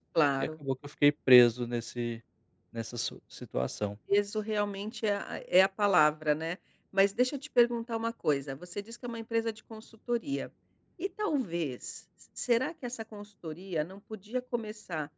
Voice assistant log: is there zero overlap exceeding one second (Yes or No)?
Yes